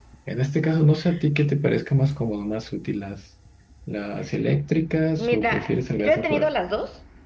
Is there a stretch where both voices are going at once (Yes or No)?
Yes